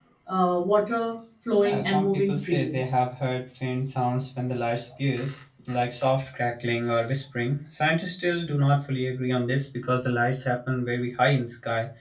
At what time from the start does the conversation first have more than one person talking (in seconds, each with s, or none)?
1.5 s